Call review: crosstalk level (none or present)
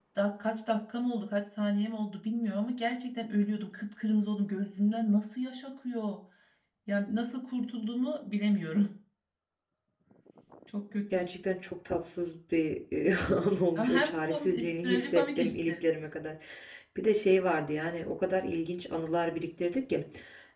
present